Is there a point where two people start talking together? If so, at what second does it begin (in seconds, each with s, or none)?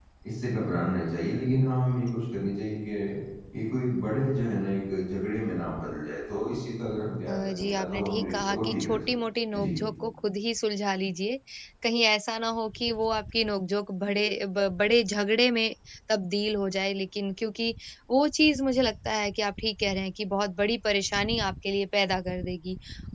7.3 s